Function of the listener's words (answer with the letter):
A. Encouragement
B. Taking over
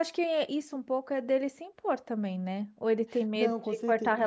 B